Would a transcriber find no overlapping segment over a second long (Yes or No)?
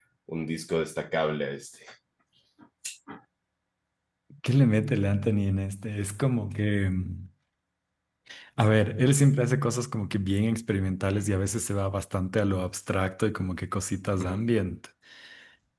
Yes